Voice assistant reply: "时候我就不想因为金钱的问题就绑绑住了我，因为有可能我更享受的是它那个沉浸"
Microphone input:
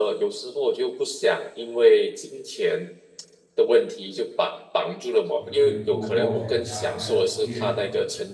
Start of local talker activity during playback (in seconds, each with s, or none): 5.4 s